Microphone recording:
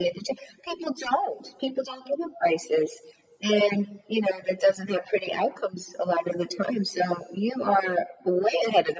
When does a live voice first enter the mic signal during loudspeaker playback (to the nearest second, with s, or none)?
none